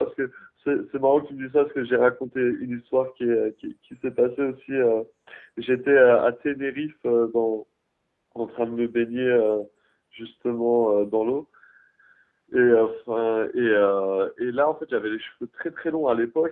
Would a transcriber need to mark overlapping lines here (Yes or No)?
No